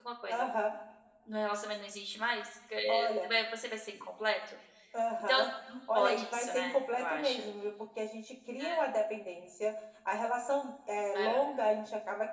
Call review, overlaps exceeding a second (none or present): present